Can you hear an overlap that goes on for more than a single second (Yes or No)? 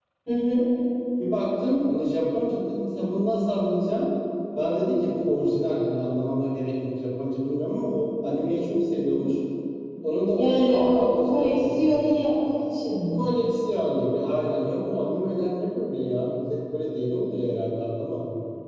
Yes